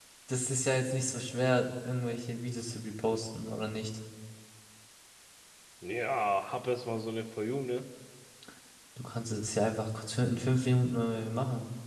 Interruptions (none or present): none